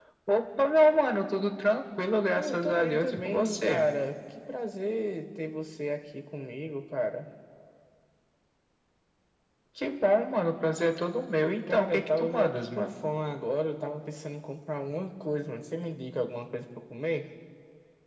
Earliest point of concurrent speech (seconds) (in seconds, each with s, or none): 2.4 s